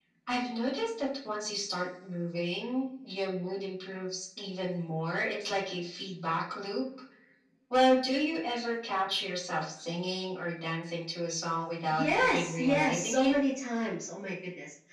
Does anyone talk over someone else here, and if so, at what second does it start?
11.9 s

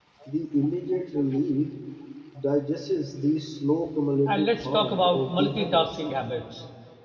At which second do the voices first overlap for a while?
4.3 s

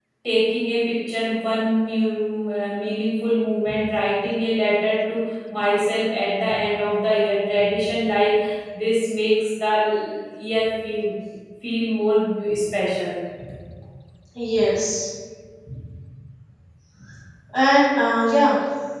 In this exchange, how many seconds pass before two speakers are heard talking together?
none

